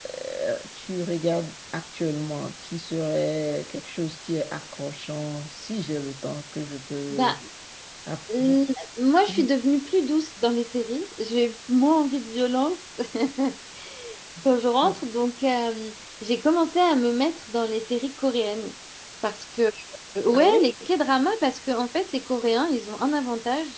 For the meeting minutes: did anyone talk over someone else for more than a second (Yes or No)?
No